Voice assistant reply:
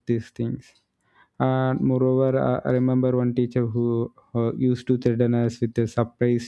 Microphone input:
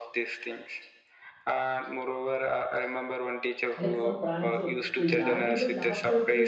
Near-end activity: present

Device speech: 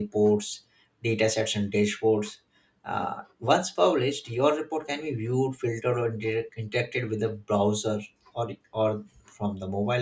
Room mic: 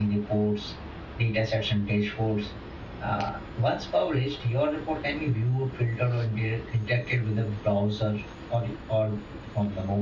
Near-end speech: none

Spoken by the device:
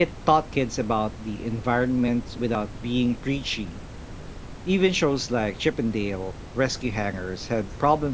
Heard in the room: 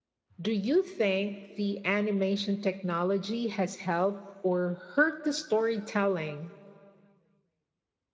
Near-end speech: present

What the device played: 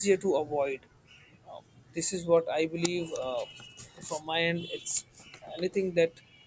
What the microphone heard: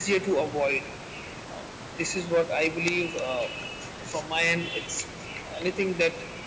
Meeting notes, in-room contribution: none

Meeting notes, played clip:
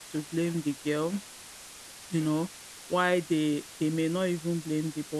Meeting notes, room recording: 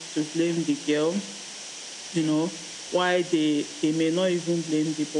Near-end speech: none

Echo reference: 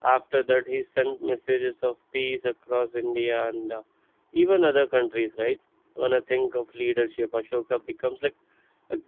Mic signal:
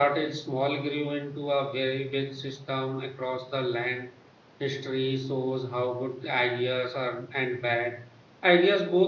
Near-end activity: present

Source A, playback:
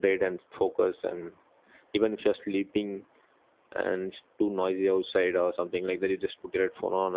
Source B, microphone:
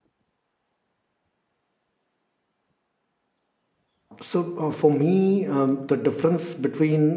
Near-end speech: present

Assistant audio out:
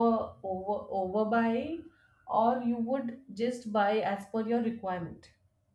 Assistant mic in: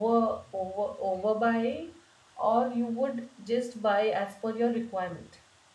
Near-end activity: none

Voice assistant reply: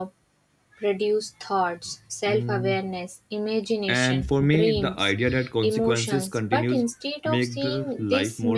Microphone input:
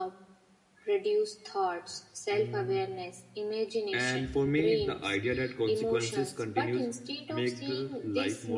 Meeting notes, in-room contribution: none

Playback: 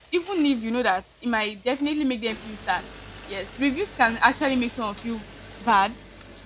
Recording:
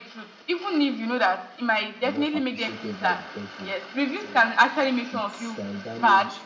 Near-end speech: present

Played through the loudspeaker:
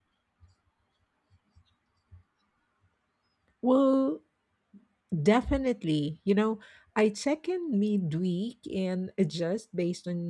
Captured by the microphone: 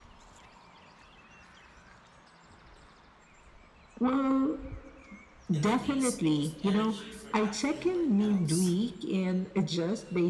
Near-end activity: present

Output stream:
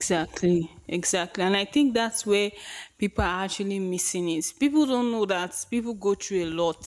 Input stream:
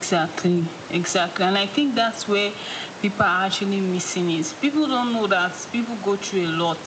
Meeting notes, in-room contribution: none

